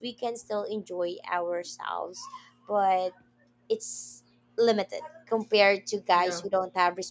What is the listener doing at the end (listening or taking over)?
listening